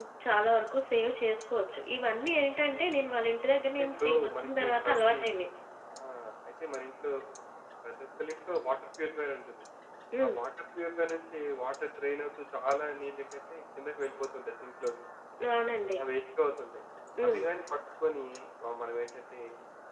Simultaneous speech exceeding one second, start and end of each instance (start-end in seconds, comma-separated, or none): 3.8-5.2